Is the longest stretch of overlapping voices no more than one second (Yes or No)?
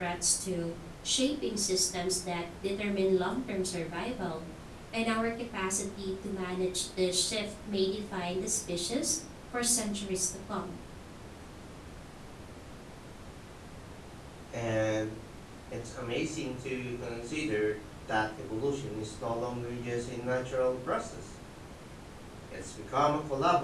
Yes